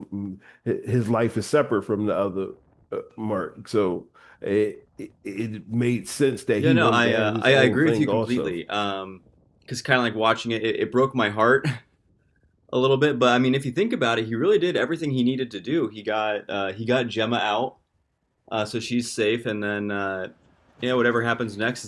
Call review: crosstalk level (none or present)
present